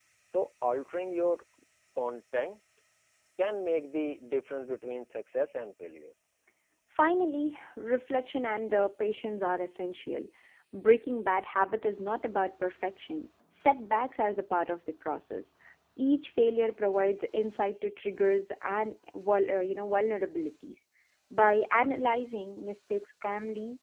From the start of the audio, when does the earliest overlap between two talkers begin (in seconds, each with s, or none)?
none